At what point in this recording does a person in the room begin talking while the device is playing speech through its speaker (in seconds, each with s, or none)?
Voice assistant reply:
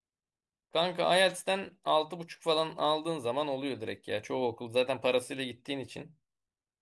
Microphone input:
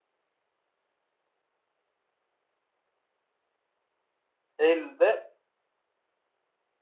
4.6 s